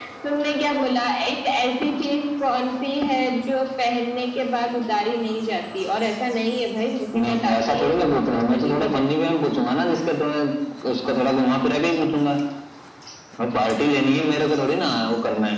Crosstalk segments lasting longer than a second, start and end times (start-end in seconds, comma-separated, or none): 7.2-9.3